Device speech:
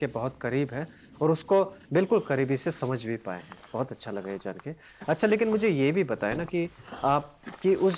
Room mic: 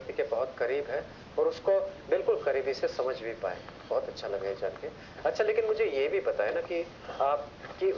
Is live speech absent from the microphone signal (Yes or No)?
Yes